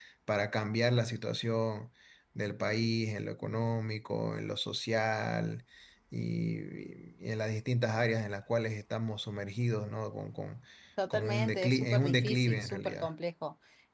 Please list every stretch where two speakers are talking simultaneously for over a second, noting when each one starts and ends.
11.1-13.1

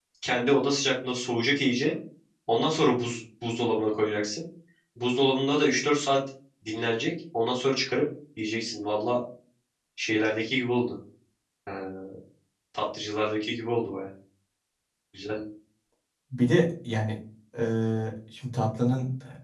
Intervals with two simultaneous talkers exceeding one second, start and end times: none

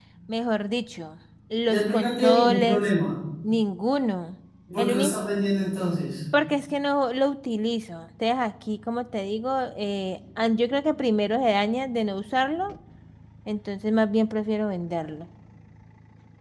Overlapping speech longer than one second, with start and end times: 1.7-2.9

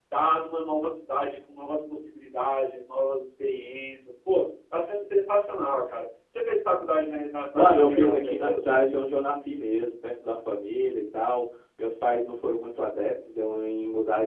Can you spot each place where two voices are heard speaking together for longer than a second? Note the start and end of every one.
7.5-8.8

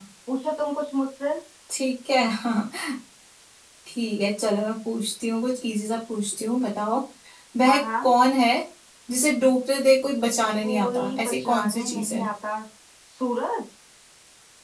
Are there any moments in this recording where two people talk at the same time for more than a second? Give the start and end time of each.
10.6-12.3

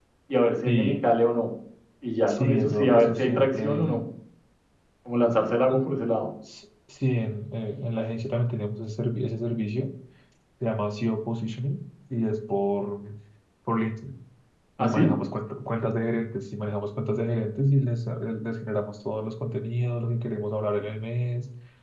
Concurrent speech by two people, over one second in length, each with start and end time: 2.3-4.0

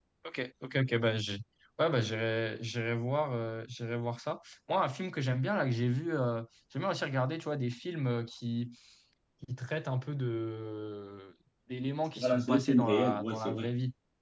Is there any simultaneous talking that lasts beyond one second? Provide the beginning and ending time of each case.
12.2-13.7

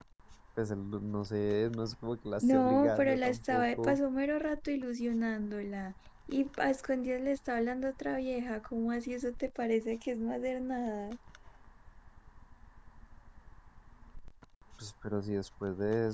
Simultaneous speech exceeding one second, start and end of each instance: 2.4-4.0

